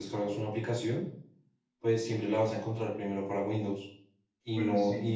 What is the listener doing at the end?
listening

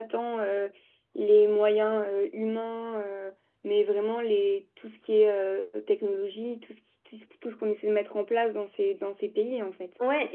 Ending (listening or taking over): taking over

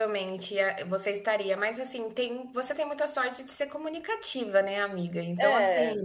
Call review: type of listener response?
listening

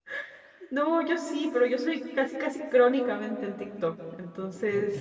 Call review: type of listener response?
taking over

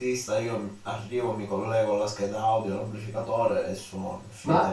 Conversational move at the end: taking over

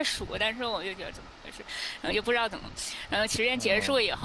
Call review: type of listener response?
listening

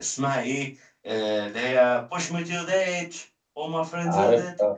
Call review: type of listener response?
listening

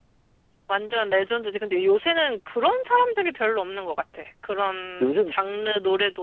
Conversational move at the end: listening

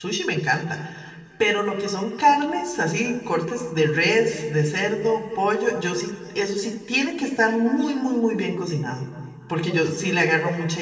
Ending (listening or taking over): listening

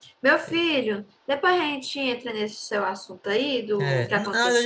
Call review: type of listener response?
taking over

